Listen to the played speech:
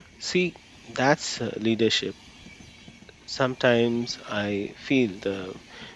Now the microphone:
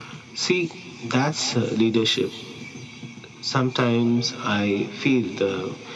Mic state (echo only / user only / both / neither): echo only